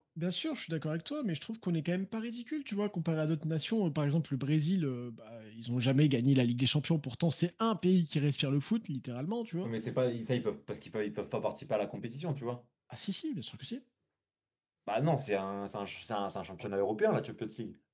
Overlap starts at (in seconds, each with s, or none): none